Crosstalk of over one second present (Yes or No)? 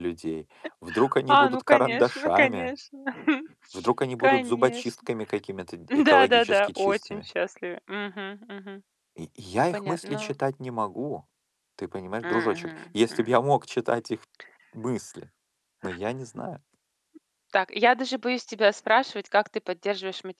Yes